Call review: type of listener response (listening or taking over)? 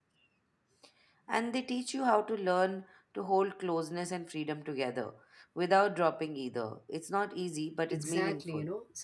taking over